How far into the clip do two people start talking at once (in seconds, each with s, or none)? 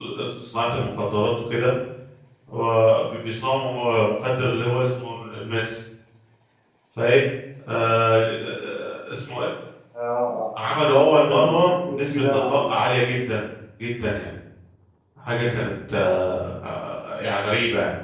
11.1 s